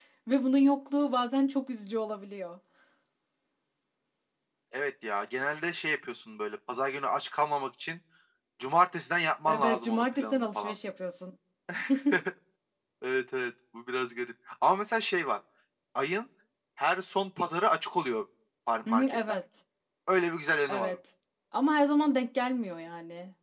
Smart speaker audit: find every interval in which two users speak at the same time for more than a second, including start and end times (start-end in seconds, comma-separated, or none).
9.5-10.7